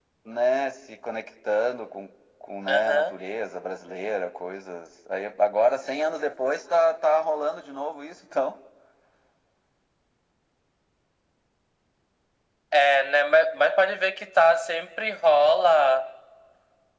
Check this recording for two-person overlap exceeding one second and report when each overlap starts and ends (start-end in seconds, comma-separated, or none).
none